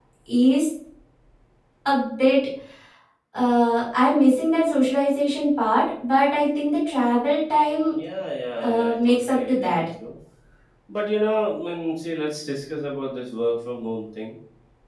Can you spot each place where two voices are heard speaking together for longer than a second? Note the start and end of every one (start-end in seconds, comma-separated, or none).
8.6-9.8